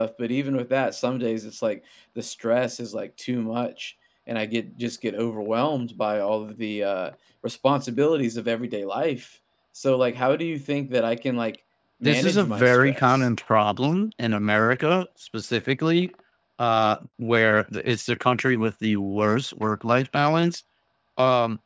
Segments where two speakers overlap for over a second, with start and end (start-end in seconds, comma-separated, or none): 12.0-13.2